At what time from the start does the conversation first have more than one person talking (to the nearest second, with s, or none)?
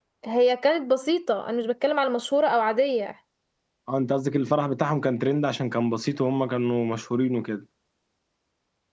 none